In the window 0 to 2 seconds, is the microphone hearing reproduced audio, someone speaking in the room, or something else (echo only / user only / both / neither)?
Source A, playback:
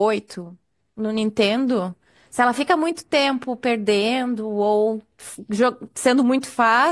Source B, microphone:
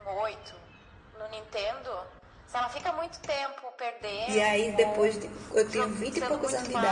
echo only